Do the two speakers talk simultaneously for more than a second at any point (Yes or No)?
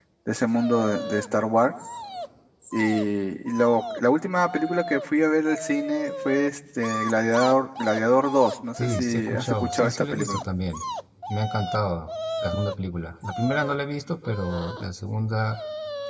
Yes